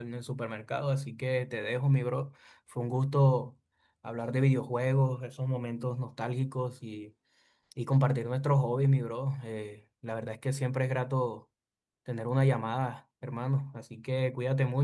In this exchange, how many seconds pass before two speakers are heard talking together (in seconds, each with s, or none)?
none